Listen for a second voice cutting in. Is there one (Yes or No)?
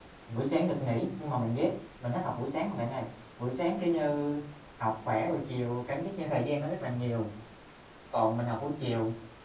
No